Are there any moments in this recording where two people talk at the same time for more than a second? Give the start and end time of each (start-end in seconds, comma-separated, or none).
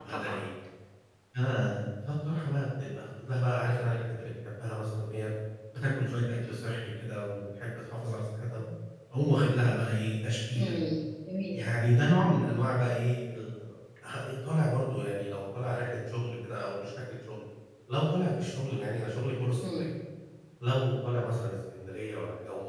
none